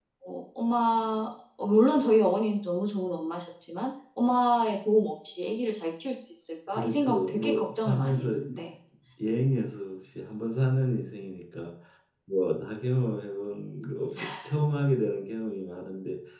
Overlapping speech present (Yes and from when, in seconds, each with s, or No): Yes, from 6.7 s